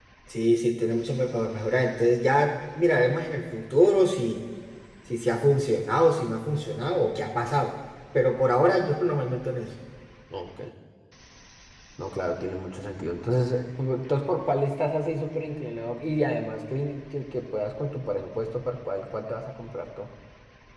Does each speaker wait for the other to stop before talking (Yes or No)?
Yes